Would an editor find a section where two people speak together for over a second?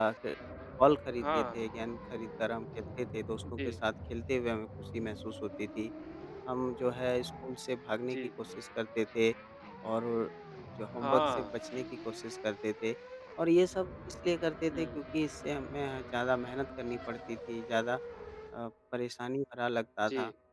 No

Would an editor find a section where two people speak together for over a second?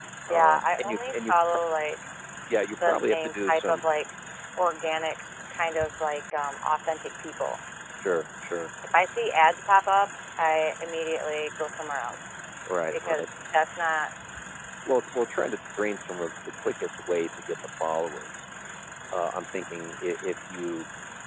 Yes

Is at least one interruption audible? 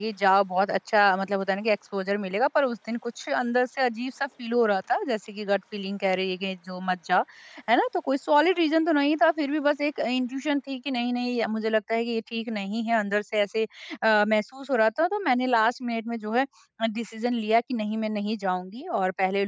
No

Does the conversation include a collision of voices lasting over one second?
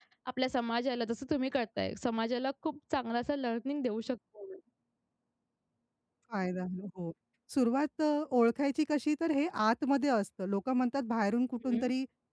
No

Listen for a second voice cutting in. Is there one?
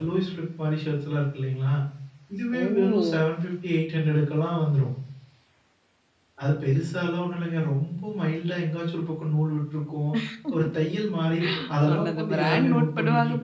Yes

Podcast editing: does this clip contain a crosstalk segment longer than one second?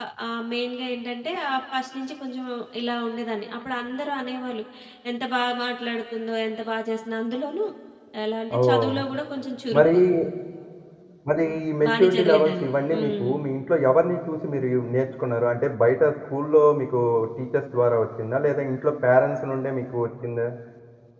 Yes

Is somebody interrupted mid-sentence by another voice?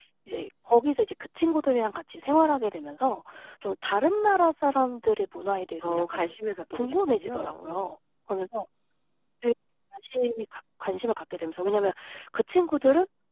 Yes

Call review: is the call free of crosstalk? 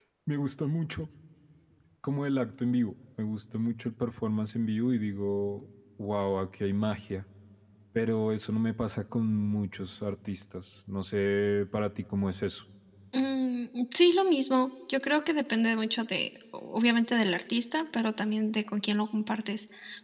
Yes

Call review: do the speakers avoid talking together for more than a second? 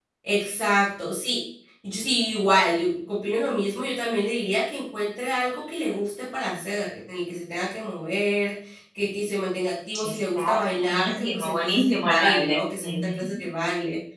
No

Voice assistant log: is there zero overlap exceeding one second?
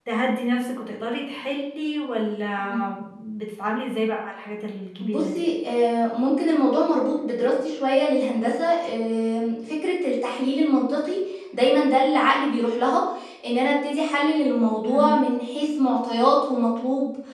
Yes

